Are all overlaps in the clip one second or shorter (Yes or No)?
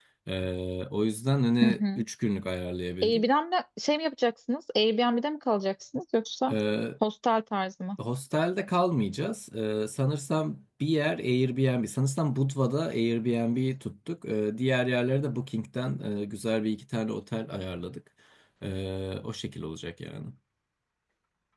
Yes